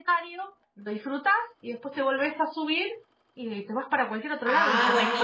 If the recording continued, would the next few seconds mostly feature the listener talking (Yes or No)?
Yes